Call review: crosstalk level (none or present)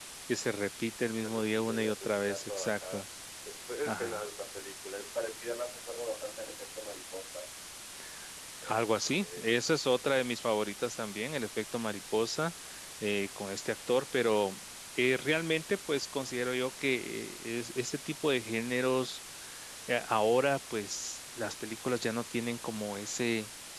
present